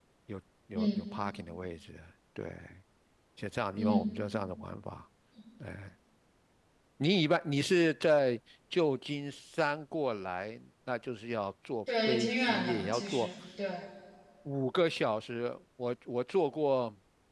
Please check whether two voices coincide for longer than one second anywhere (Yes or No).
Yes